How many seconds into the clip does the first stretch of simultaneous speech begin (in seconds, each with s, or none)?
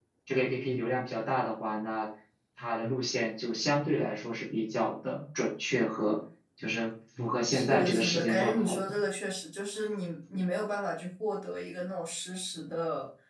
7.5 s